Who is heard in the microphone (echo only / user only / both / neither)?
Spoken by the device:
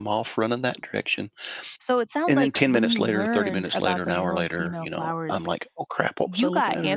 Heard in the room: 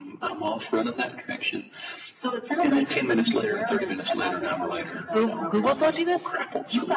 both